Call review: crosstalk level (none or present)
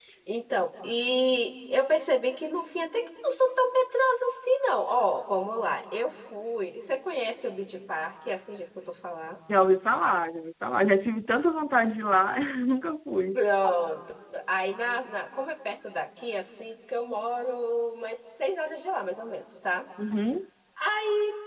none